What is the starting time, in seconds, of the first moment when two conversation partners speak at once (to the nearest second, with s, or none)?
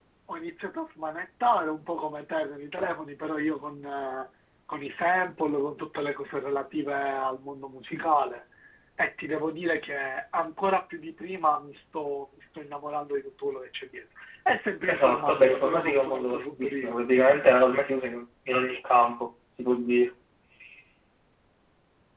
15 s